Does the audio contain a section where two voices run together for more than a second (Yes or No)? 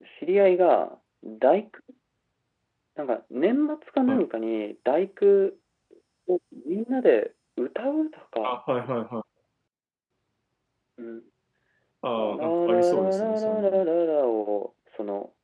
Yes